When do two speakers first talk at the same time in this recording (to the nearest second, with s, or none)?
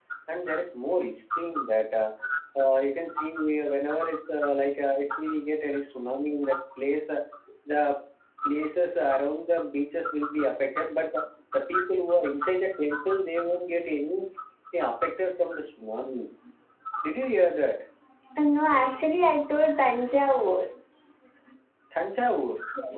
none